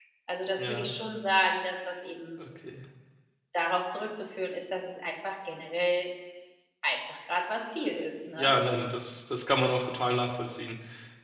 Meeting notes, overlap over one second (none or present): none